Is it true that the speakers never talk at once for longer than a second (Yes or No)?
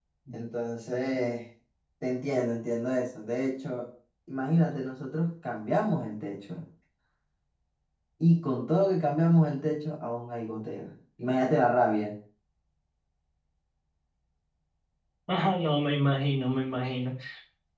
Yes